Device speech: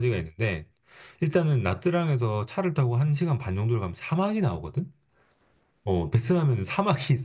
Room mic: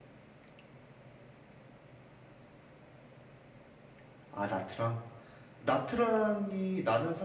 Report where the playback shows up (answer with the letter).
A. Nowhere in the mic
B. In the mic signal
A